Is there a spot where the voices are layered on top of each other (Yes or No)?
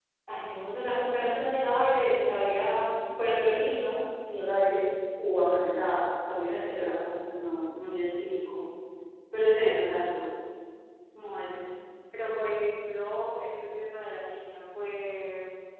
No